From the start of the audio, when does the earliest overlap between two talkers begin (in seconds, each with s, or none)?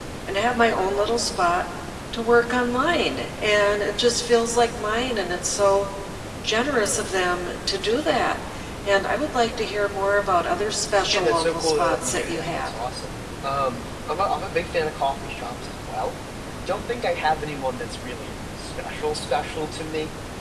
11.1 s